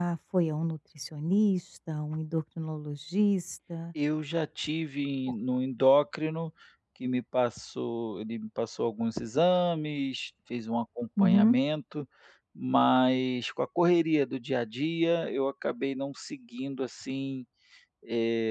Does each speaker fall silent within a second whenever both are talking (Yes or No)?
Yes